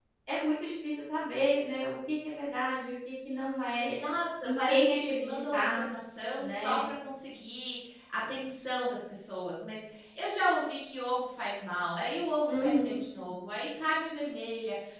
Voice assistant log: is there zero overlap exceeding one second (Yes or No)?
No